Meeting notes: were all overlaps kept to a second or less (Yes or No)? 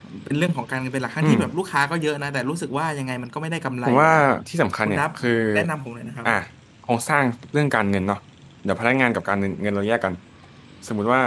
Yes